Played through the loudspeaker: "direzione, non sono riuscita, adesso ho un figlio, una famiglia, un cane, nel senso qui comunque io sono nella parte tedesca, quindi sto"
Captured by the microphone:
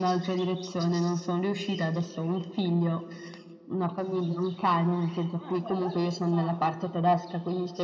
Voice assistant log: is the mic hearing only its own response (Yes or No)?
No